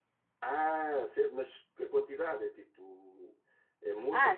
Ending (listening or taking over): taking over